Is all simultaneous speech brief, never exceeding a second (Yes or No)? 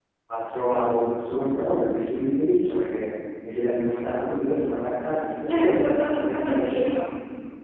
No